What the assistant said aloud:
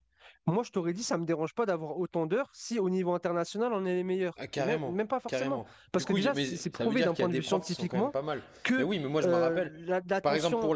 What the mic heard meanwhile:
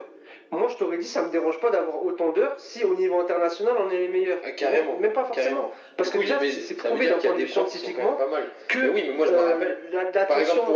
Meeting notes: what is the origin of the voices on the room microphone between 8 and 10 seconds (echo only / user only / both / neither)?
echo only